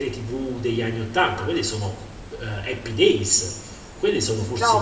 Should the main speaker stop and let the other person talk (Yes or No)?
Yes